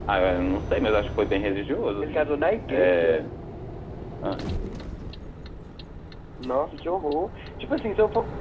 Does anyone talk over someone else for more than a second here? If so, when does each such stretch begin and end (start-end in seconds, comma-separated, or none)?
none